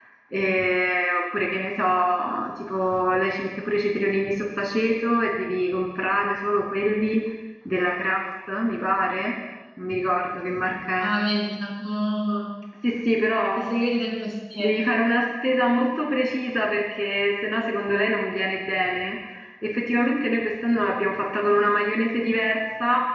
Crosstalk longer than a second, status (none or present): none